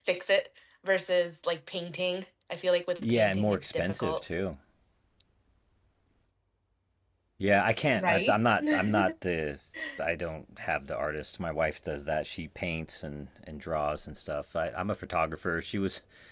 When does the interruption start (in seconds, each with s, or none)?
3.0 s